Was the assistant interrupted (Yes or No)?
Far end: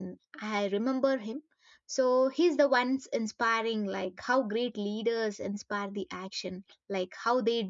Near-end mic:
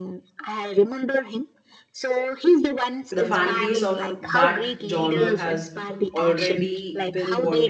Yes